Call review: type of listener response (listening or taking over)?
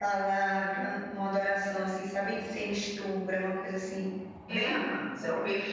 taking over